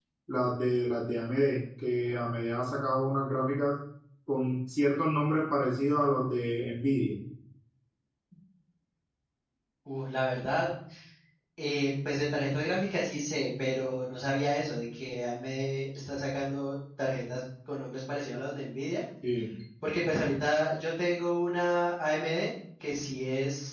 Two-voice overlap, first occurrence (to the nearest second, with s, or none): none